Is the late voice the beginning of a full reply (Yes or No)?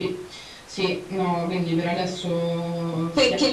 Yes